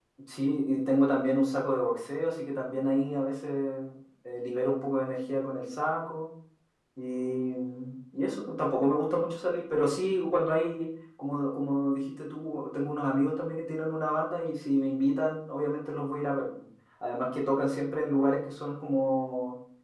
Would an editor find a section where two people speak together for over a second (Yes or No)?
No